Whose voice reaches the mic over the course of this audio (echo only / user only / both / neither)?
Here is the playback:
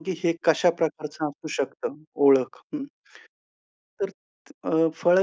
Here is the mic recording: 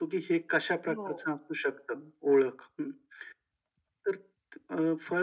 both